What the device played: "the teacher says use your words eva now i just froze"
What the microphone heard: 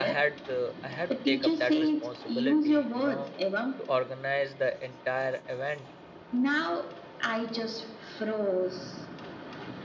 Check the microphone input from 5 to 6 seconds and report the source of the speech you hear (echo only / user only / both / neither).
user only